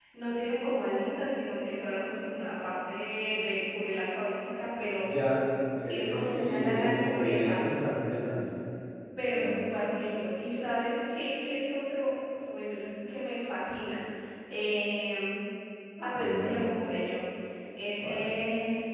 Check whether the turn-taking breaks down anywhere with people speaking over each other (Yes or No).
Yes